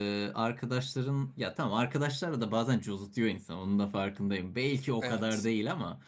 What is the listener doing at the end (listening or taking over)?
listening